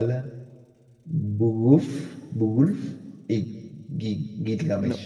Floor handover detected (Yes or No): Yes